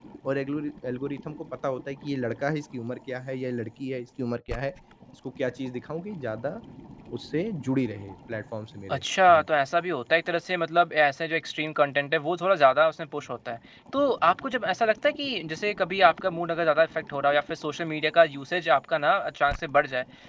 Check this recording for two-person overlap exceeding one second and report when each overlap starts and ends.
none

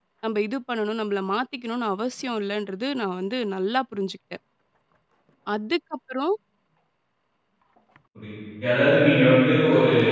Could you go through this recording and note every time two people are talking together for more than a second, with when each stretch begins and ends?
none

